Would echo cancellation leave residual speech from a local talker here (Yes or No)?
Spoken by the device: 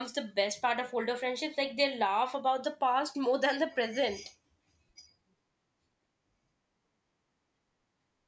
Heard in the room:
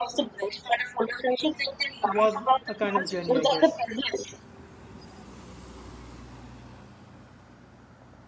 Yes